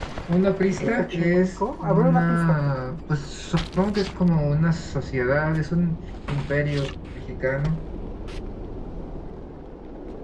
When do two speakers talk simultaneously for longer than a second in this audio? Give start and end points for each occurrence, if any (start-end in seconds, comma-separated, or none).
1.0-2.6